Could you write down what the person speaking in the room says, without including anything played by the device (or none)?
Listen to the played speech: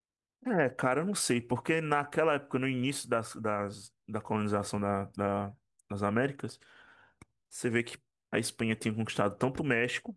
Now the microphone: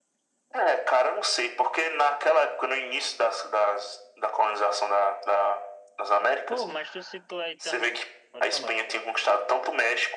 Pô, mas tu citou aí também, pode falar.